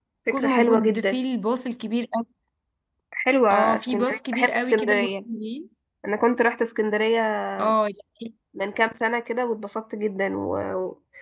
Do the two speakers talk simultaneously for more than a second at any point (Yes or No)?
Yes